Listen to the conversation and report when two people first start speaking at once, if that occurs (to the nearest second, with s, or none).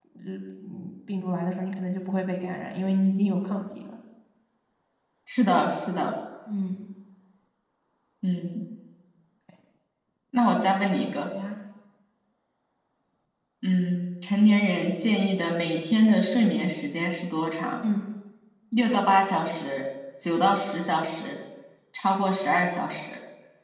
none